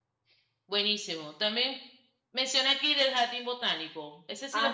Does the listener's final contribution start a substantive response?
Yes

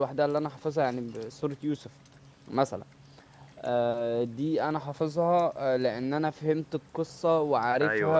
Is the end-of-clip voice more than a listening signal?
Yes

